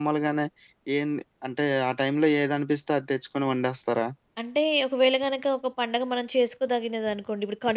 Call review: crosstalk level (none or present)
none